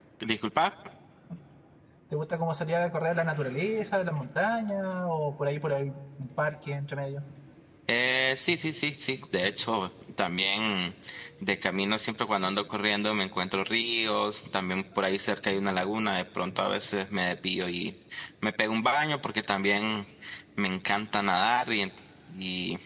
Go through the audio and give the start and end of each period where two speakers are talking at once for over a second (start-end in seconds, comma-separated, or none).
none